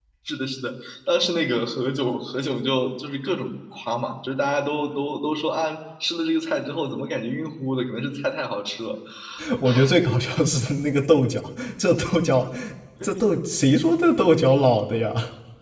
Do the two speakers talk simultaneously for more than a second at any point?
No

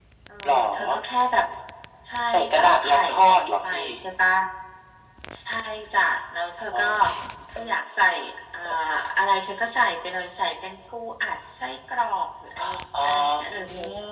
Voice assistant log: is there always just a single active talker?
No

